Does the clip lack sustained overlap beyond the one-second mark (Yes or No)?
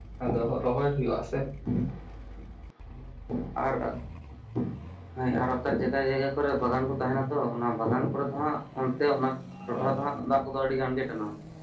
Yes